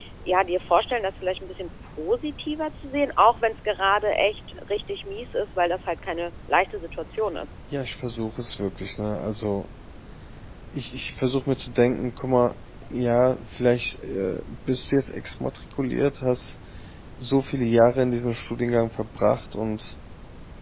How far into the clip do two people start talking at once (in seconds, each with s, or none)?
none